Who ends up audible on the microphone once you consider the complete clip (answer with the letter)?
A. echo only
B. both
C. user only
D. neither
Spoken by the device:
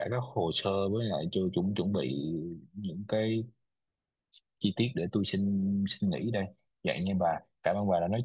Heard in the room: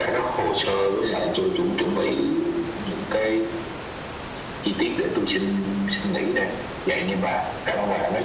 A